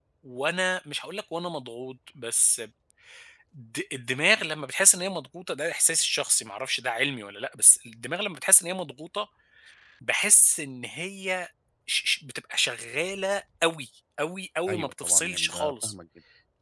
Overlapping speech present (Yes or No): Yes